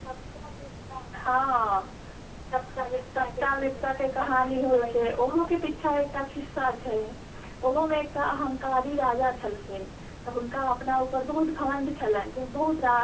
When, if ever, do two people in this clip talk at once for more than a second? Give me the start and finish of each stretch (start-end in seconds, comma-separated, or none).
3.1-5.8